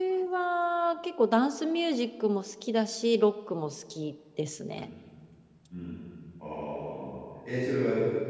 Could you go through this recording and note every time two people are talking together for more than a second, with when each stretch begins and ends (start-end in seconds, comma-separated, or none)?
none